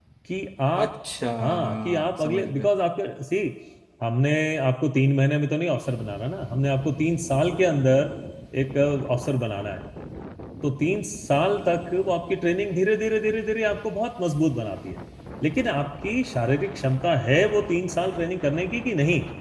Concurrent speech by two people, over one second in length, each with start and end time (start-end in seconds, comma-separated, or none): 1.4-2.7